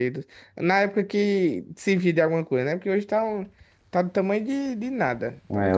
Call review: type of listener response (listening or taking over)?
taking over